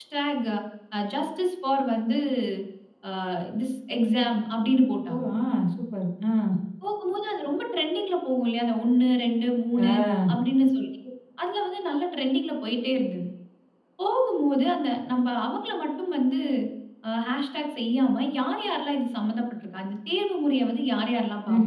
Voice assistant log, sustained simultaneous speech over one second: none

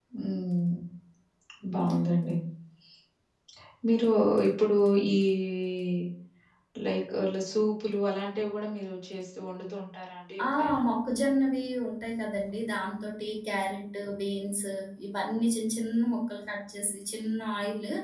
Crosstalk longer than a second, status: none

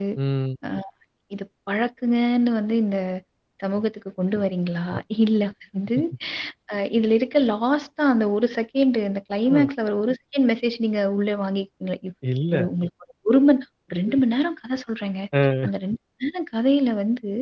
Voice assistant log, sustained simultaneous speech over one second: none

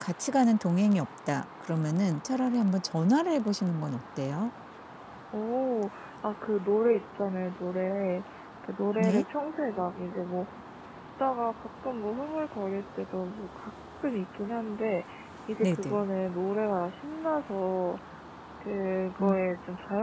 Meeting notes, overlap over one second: none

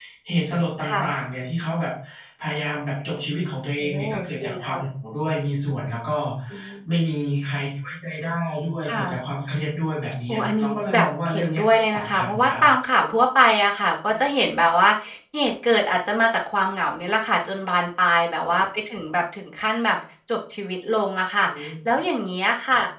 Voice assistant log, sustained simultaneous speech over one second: present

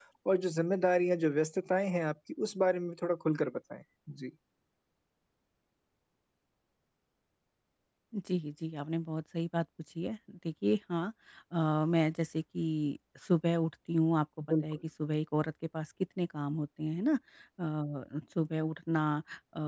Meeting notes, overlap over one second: none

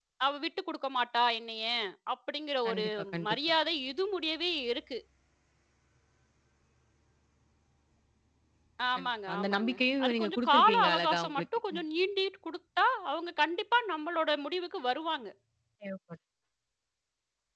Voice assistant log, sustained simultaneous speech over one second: present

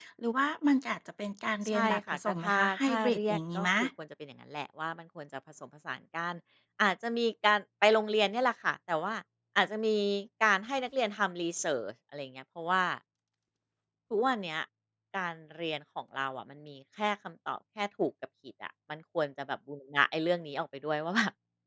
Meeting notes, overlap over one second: present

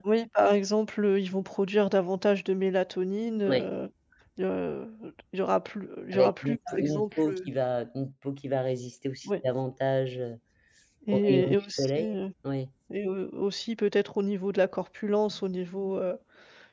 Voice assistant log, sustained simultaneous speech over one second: present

